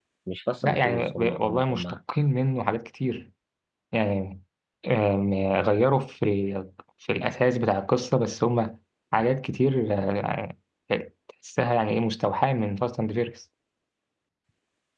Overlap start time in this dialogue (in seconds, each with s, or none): 0.6 s